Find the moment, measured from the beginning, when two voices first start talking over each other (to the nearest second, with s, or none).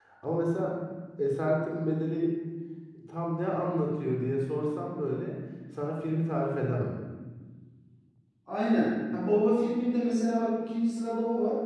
none